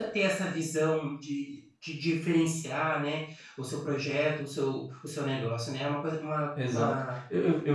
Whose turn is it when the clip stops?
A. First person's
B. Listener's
B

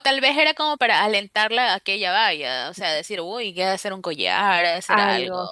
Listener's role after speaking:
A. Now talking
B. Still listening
A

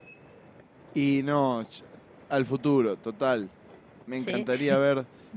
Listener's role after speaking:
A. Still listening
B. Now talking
A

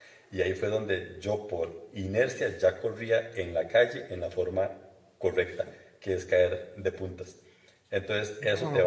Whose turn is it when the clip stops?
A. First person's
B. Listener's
A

